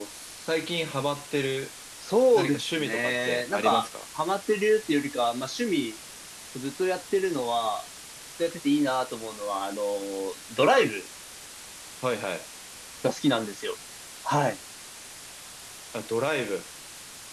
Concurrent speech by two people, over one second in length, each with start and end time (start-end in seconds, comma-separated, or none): 2.3-3.9